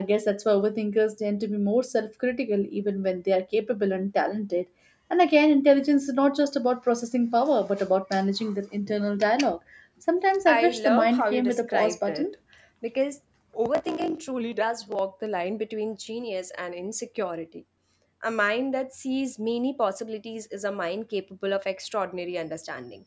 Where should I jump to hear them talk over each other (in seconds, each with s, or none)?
10.4 s